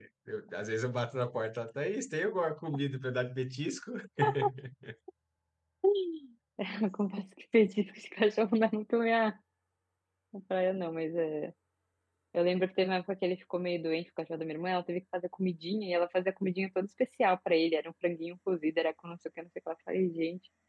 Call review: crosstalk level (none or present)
none